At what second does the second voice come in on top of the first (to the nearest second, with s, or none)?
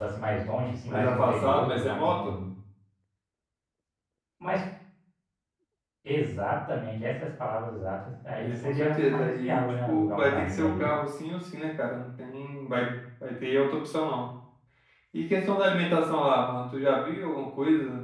1 s